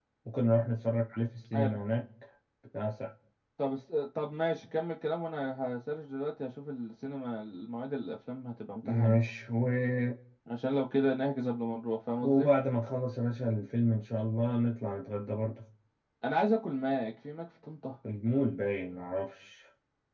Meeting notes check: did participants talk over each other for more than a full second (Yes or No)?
No